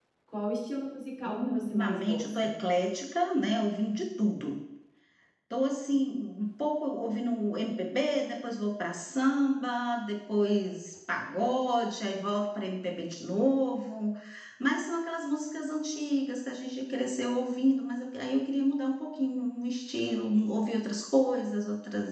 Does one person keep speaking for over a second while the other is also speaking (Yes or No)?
Yes